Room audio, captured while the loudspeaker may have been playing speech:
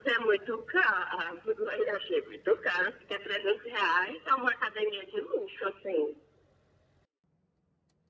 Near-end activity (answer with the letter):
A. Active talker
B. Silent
B